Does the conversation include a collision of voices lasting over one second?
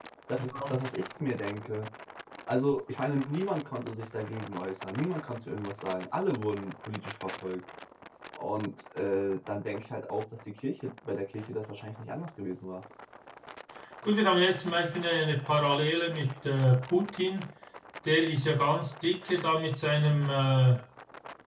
No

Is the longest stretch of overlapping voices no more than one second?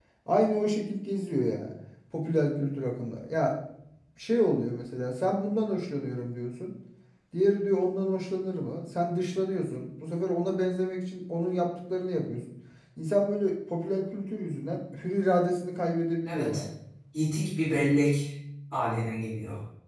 Yes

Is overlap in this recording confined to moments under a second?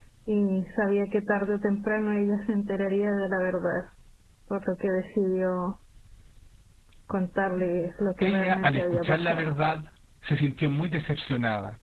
No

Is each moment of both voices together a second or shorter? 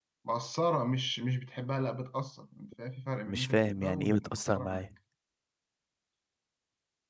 No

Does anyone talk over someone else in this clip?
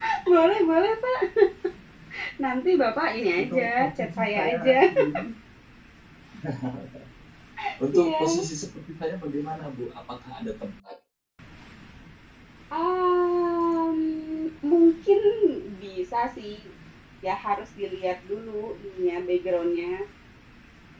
Yes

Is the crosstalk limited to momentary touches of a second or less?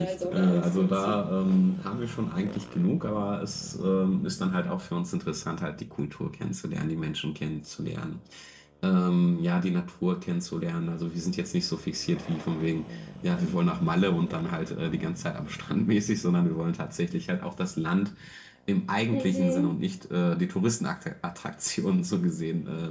No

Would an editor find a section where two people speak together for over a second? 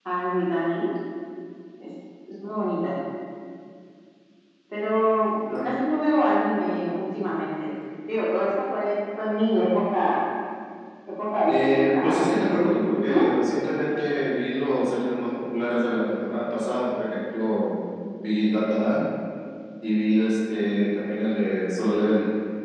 Yes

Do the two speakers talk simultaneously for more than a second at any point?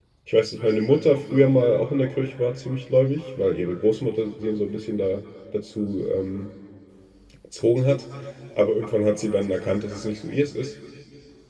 No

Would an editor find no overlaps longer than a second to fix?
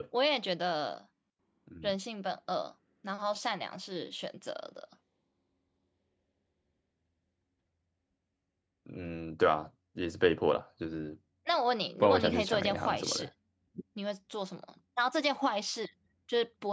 No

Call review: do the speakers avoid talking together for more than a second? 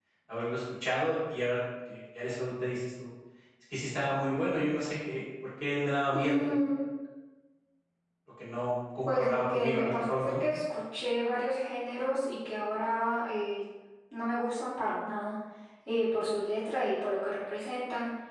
No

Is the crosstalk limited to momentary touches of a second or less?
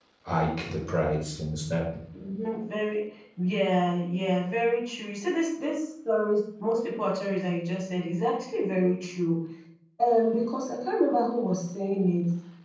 Yes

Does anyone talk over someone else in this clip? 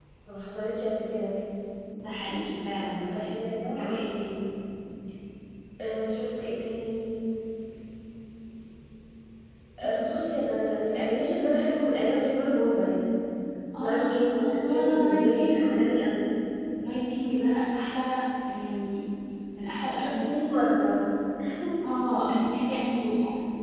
Yes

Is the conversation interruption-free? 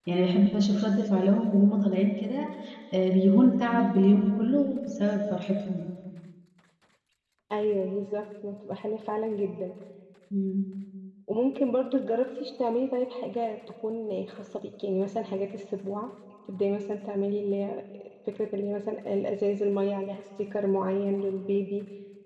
Yes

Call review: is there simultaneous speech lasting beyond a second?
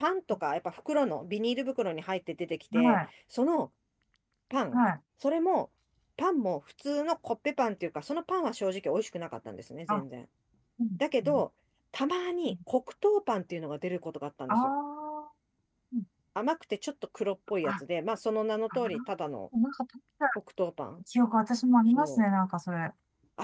No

